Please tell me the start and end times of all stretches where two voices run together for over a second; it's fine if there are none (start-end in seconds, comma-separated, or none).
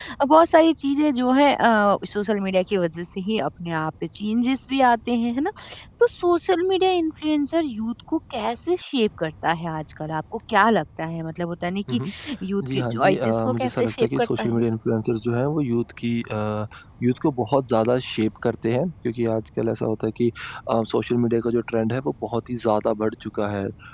12.7-14.6